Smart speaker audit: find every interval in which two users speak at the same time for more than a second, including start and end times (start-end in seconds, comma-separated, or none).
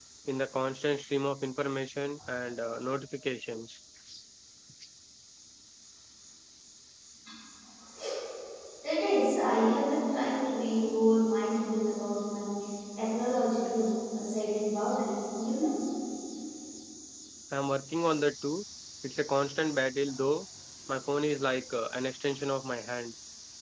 none